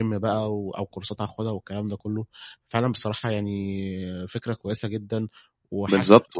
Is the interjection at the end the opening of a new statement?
Yes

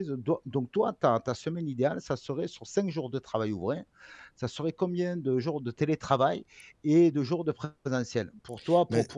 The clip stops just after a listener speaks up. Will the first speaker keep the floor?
Yes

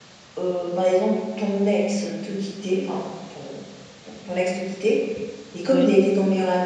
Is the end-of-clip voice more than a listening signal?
No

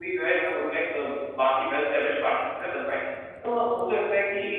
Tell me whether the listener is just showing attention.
Yes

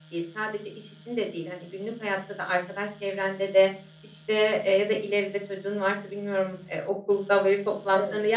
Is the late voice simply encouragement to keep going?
Yes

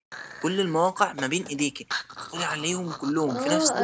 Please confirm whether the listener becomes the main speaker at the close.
Yes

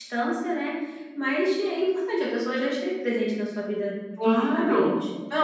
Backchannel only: No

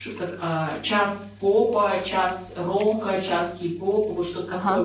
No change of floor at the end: Yes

